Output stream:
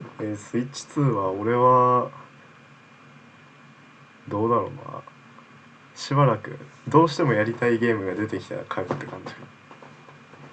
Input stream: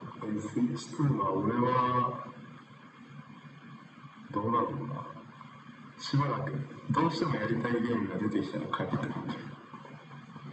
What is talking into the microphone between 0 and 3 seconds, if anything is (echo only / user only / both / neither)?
echo only